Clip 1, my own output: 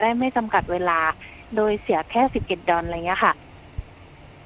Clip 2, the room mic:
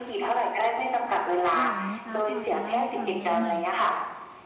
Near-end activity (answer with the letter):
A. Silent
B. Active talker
B